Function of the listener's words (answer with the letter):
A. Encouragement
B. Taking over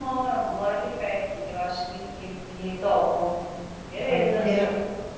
B